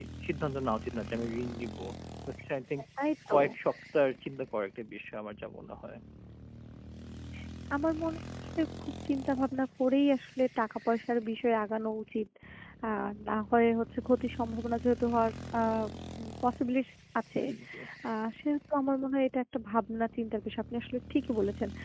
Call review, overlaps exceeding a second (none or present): none